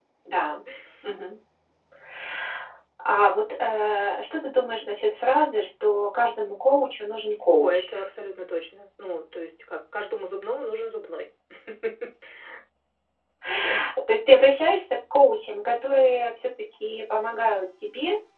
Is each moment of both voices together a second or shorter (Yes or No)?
Yes